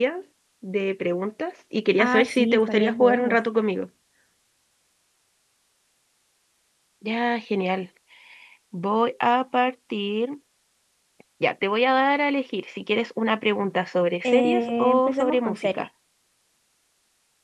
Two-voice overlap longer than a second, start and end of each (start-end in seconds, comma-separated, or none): 2.0-3.4, 14.2-15.9